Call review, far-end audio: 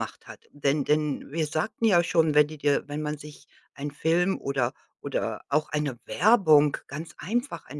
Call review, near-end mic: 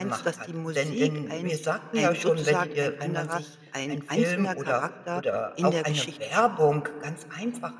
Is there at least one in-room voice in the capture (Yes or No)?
Yes